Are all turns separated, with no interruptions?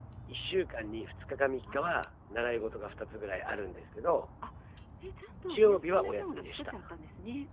No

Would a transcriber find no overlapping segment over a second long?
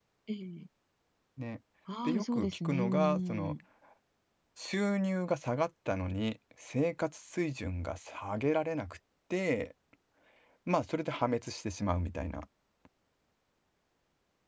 No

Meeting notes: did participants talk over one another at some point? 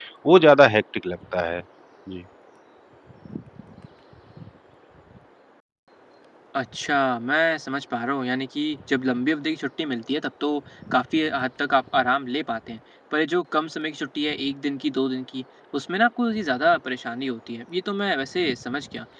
No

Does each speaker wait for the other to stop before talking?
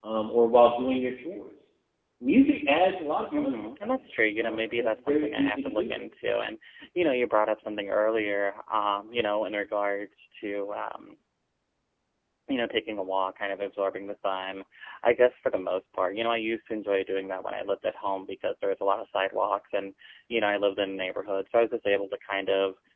No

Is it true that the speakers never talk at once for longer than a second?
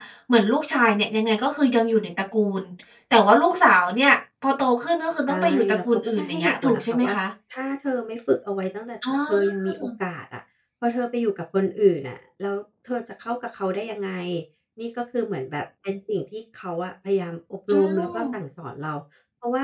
No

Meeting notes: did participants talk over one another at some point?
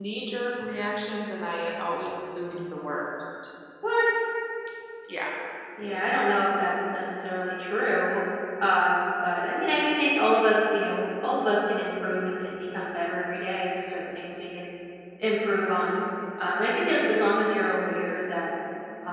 No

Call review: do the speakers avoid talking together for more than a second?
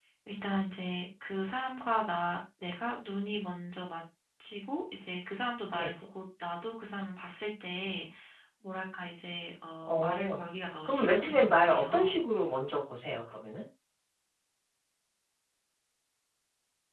No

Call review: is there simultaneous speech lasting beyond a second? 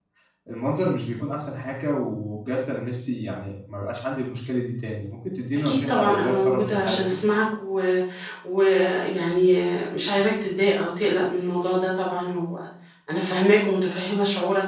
Yes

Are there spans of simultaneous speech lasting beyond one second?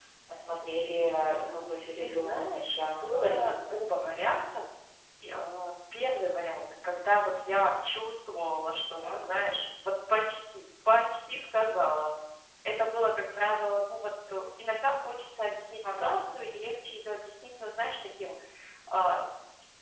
Yes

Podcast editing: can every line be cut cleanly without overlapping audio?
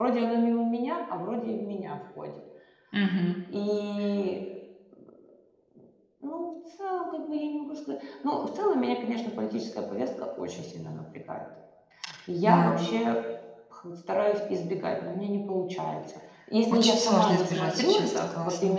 No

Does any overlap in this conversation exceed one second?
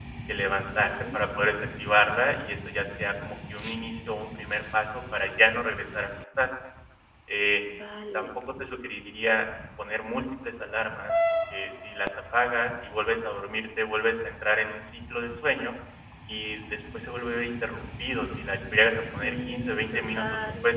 Yes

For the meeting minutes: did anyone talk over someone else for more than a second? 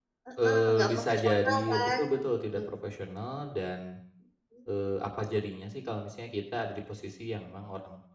Yes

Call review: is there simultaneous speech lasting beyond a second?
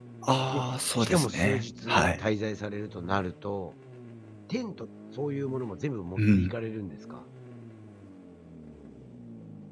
Yes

